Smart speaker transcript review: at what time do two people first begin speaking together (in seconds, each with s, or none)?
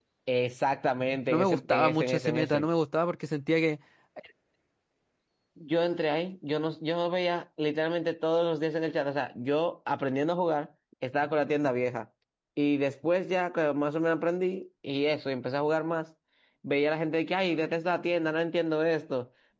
1.3 s